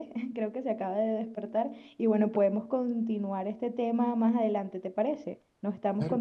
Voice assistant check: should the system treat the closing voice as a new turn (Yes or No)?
Yes